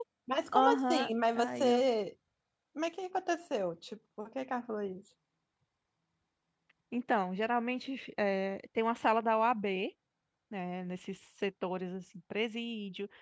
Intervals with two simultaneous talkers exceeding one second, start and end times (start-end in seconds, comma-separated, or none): 0.5-1.8